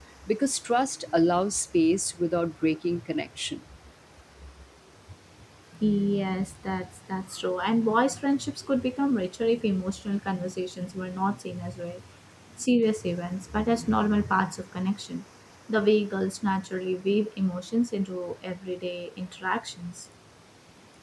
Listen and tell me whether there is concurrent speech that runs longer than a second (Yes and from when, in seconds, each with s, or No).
No